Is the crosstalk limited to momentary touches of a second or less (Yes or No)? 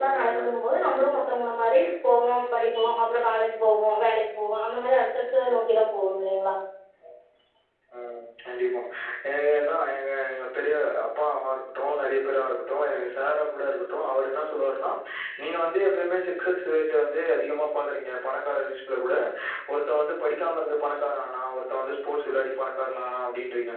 Yes